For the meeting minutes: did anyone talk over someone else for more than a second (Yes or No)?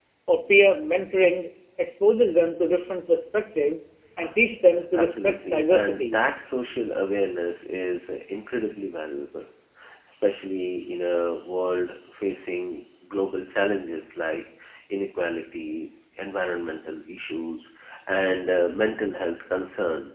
Yes